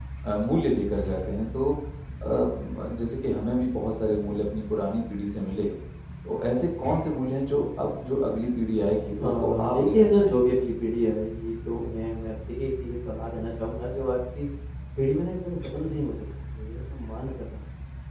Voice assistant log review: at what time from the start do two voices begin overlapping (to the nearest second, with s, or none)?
9 s